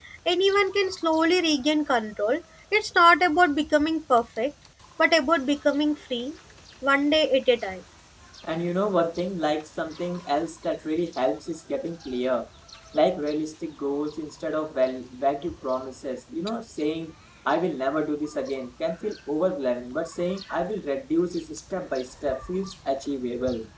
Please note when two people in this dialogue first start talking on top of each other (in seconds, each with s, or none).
none